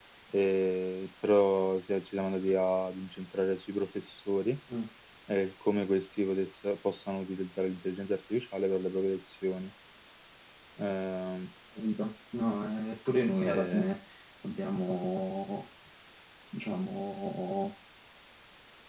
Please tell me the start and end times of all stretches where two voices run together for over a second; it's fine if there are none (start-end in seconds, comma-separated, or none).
none